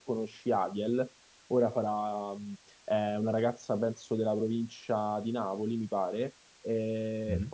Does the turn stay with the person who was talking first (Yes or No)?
Yes